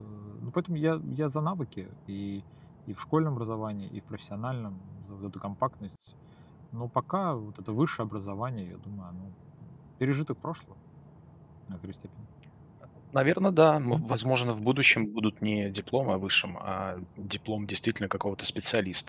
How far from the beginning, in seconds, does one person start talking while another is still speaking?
none

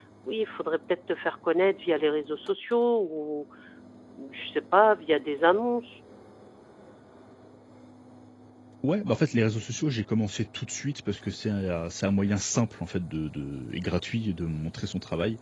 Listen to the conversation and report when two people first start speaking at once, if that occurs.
none

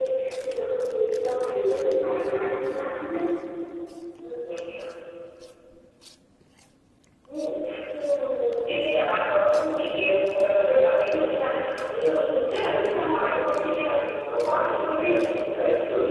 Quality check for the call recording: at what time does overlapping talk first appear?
none

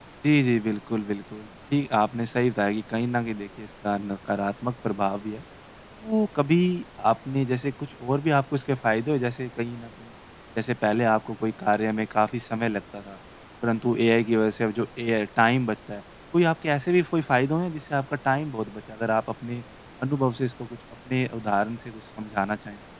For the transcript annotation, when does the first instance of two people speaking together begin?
none

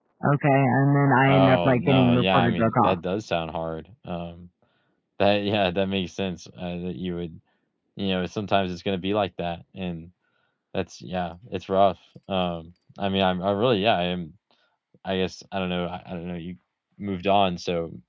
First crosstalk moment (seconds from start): 1.2 s

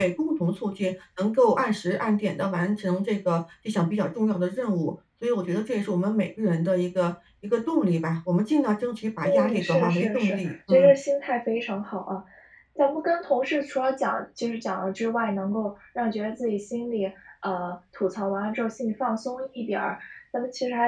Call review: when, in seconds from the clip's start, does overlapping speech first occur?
9.2 s

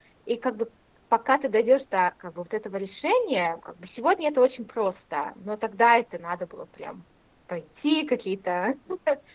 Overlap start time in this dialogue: none

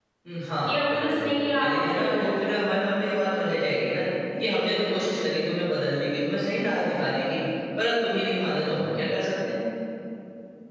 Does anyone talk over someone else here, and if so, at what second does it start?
0.7 s

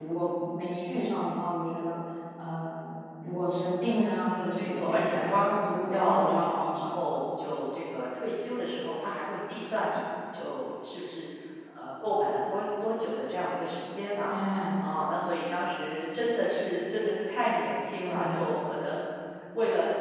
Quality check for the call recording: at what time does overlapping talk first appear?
4.2 s

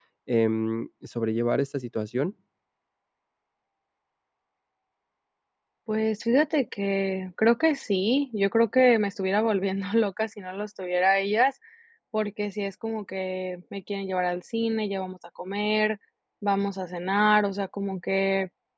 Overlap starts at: none

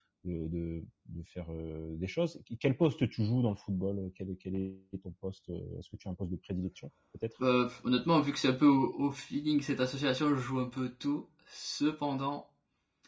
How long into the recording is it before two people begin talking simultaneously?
none

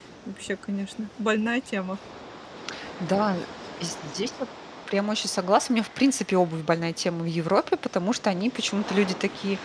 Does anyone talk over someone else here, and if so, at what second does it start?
none

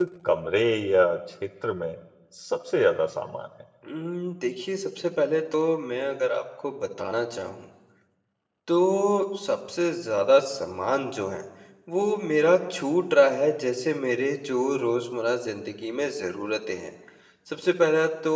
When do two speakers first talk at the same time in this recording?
none

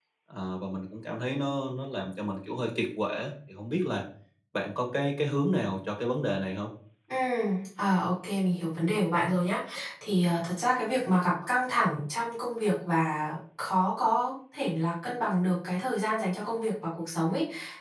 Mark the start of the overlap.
none

